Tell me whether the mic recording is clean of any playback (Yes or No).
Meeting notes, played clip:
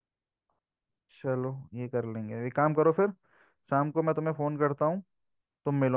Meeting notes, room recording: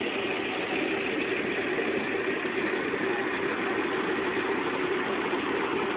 Yes